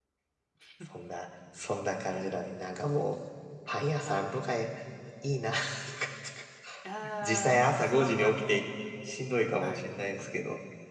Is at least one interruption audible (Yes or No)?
Yes